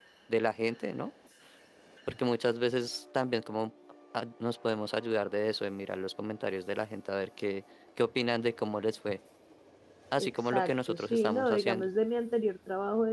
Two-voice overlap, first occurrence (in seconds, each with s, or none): 10.2 s